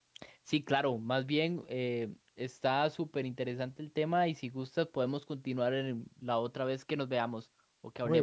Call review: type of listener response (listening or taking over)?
taking over